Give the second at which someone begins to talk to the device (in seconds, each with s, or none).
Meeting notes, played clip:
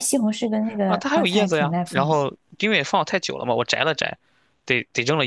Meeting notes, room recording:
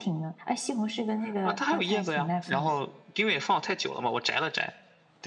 none